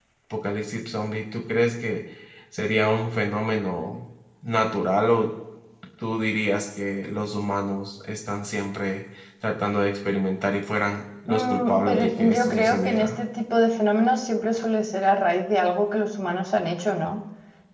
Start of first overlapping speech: 11.3 s

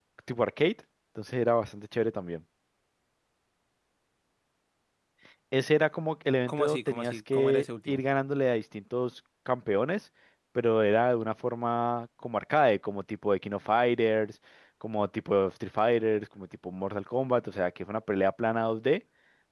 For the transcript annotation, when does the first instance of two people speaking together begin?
6.5 s

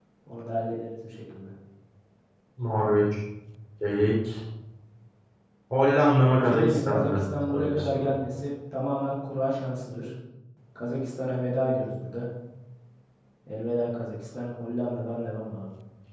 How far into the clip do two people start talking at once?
6.4 s

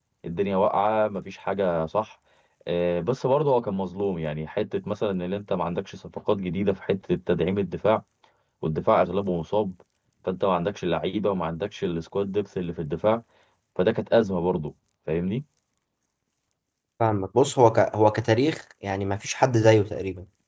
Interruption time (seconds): none

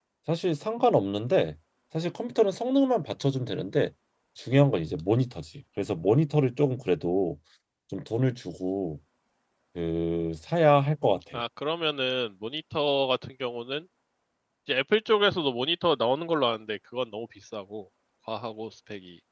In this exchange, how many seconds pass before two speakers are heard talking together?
none

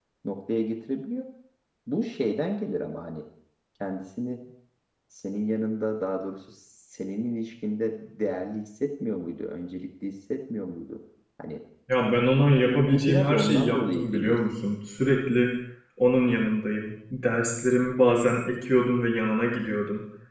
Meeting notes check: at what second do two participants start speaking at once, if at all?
12.6 s

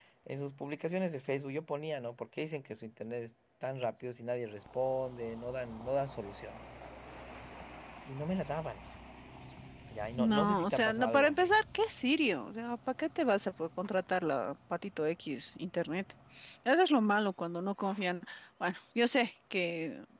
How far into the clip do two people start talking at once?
10.2 s

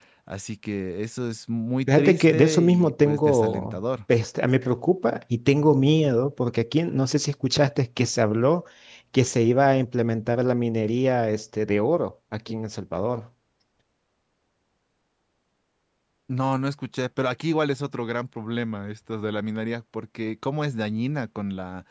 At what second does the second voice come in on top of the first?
1.9 s

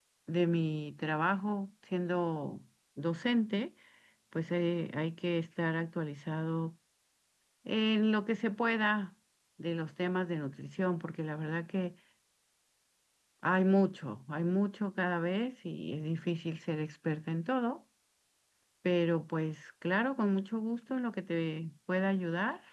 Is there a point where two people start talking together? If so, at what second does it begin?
none

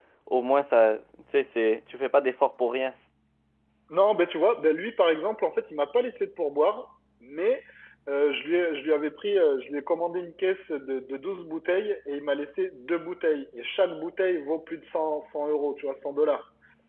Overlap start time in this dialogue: none

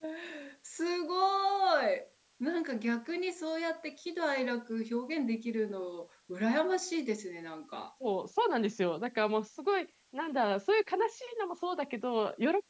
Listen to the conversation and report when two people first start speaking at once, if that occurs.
none

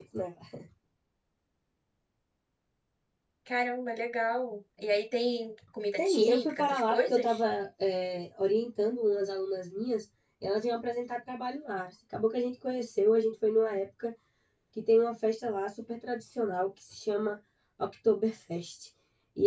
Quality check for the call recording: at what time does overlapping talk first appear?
6.0 s

